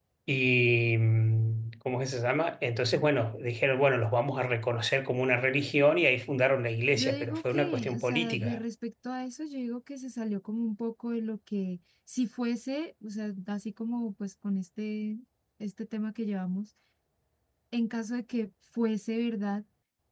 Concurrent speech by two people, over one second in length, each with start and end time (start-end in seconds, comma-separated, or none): 7.0-8.6